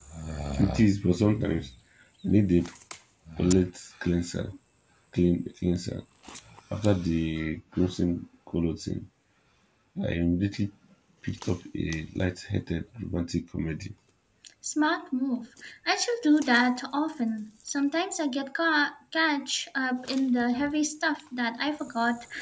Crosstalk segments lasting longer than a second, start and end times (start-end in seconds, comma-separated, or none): none